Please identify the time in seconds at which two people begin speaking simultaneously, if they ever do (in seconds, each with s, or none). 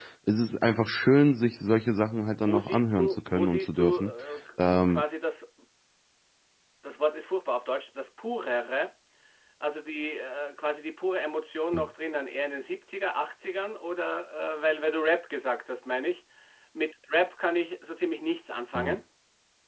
2.4 s